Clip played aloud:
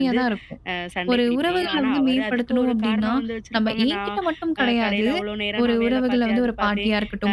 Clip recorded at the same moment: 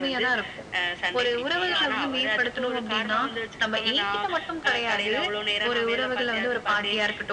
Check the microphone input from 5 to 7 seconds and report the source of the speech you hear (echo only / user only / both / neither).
echo only